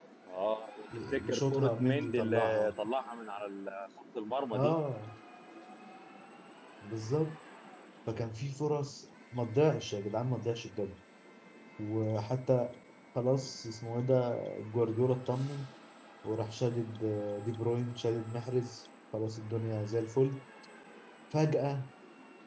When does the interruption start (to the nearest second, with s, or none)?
1 s